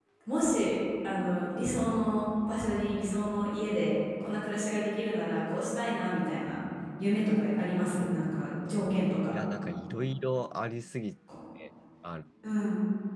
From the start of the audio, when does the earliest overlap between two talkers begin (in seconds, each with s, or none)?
none